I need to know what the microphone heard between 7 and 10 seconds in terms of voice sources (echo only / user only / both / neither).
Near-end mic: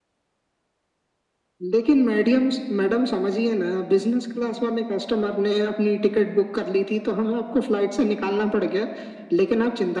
echo only